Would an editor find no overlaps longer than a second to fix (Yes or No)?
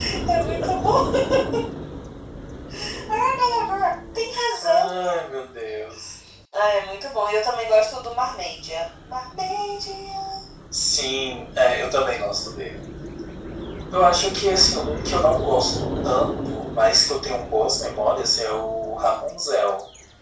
Yes